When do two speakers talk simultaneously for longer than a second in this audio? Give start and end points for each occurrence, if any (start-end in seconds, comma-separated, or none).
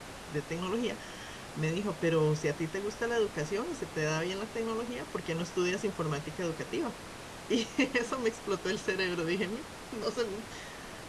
none